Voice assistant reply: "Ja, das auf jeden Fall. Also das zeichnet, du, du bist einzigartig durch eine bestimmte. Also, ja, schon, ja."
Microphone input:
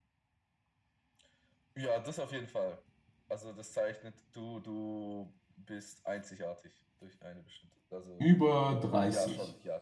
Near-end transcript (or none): über 30?